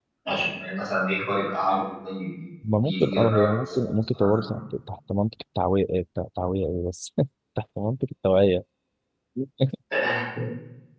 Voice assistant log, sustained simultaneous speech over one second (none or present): present